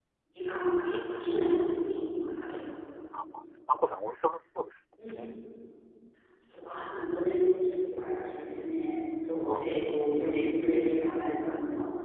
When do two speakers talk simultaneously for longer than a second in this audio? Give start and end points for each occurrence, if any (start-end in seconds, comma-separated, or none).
none